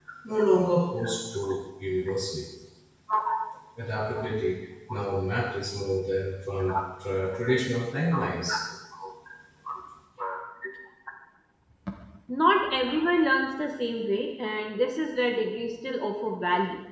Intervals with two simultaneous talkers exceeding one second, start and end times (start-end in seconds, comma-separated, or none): none